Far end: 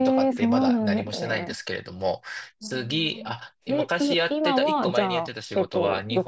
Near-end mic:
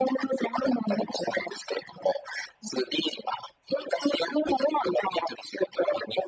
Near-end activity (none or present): none